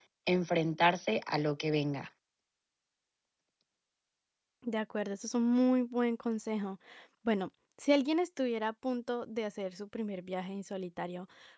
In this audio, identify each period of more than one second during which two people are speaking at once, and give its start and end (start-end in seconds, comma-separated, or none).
none